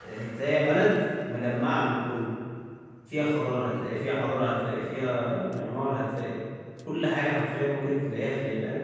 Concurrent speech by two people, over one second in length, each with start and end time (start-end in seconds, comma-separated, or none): none